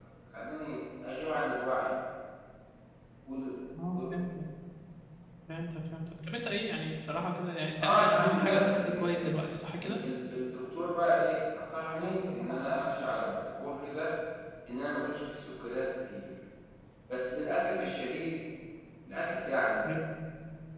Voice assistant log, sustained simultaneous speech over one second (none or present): present